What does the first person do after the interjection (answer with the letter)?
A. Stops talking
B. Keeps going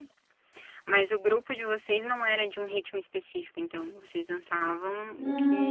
A